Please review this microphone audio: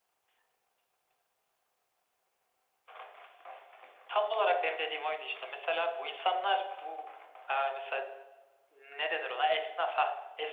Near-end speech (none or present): none